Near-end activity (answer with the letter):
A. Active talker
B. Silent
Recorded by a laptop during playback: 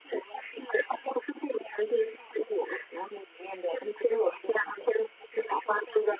B